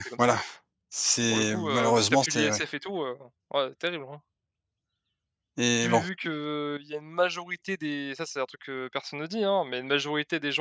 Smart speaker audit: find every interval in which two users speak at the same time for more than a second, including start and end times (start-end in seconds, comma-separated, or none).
1.3-2.6